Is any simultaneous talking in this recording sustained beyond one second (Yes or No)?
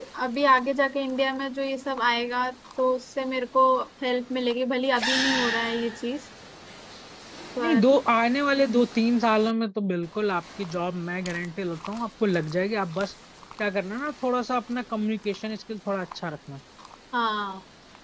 No